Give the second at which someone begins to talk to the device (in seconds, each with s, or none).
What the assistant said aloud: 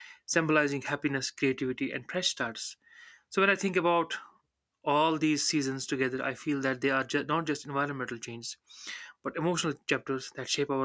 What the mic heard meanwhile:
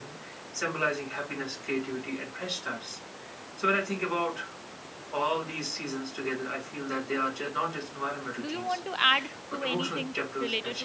8.4 s